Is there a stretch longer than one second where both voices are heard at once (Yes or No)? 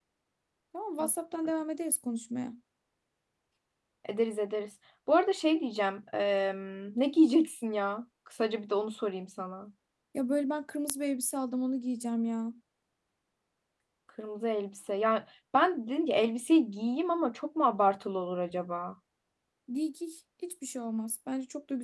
No